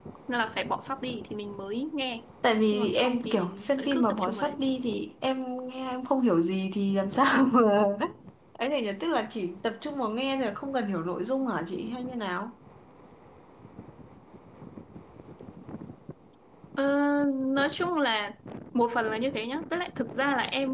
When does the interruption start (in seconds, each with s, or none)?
2.7 s